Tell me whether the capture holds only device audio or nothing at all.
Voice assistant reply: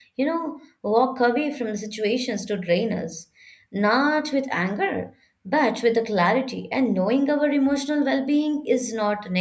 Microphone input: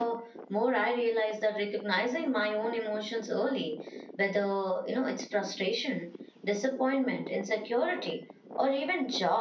No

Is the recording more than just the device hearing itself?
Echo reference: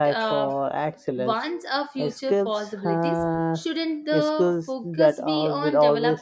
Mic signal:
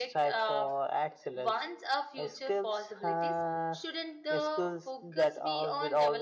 No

